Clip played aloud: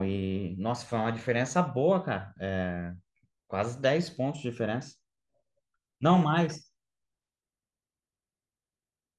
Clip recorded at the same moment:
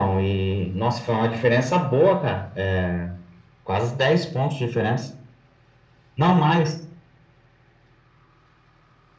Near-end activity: none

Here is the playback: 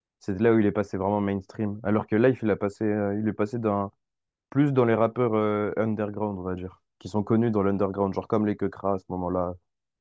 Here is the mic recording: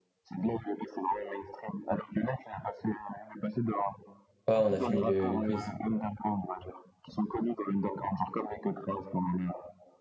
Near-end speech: present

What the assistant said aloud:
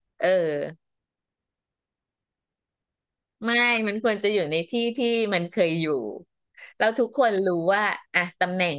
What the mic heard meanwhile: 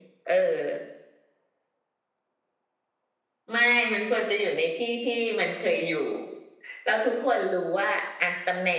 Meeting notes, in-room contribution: none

